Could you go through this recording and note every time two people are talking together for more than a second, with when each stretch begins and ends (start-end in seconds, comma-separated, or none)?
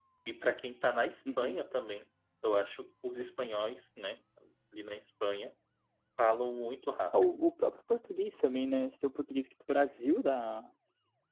none